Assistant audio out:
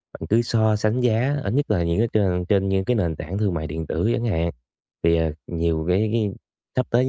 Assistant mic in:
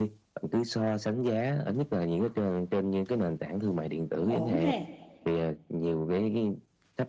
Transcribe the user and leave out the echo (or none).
cũng ổn ha.